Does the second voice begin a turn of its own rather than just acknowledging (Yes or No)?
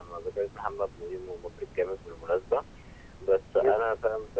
No